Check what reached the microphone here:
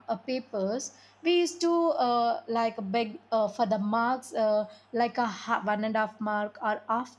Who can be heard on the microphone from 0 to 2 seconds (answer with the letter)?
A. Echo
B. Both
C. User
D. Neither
C